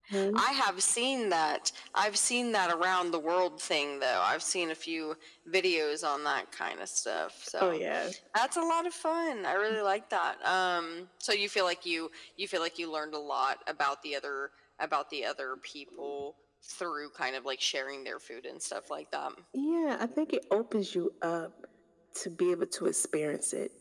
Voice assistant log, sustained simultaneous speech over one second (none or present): none